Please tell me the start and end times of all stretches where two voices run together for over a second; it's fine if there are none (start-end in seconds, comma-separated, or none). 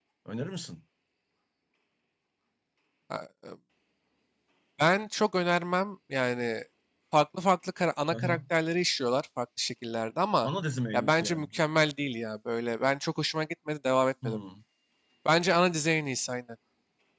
none